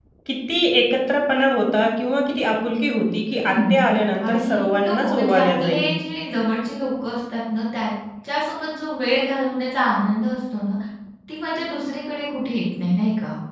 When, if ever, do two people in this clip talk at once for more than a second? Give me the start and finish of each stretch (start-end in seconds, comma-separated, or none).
4.2-5.8